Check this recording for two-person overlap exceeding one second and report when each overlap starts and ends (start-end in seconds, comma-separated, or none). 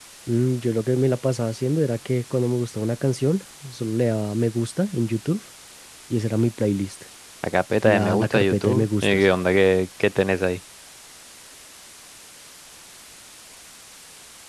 7.8-9.2